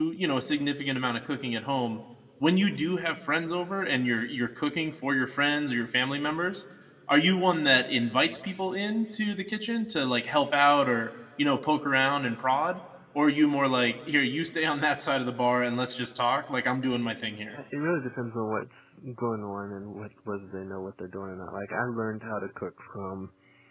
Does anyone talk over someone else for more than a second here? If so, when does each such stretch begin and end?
none

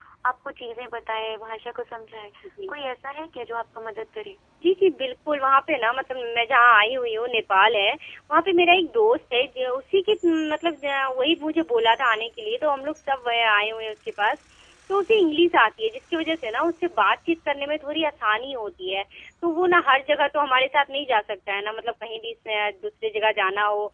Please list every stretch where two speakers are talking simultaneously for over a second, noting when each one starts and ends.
none

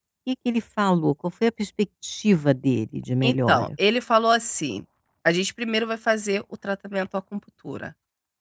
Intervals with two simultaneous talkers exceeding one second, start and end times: none

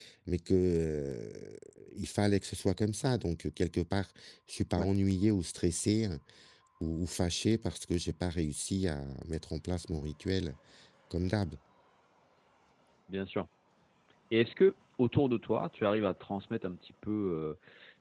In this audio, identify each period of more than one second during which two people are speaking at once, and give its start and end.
none

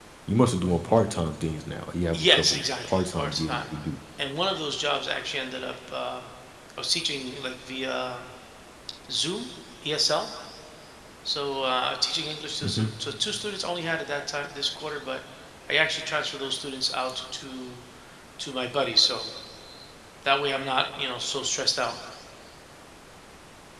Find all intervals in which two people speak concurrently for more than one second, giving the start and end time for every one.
2.1-3.7

